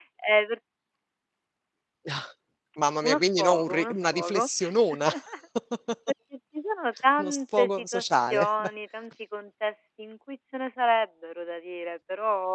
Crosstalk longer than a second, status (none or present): present